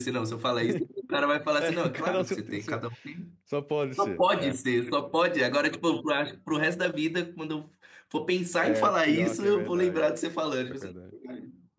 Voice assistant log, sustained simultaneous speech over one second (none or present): present